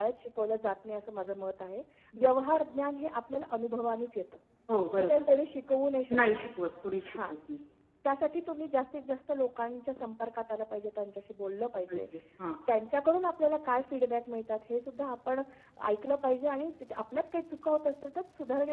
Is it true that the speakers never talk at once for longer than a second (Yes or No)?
Yes